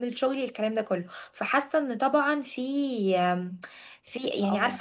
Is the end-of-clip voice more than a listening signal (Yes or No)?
Yes